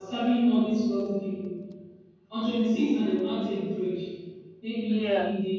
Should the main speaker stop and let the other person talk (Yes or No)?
No